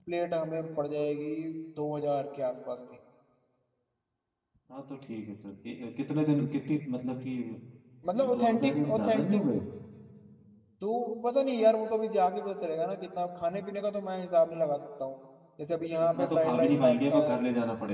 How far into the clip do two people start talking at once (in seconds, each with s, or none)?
8.2 s